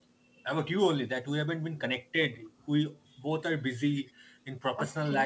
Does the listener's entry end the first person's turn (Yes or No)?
Yes